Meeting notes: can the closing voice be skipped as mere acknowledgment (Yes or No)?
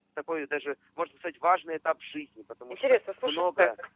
No